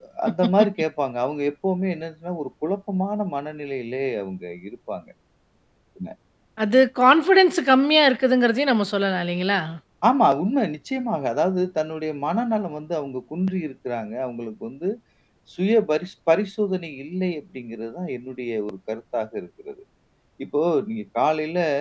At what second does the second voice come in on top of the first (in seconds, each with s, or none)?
none